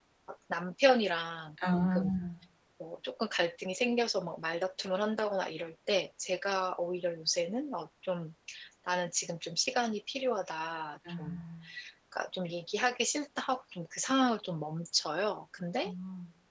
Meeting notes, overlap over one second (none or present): none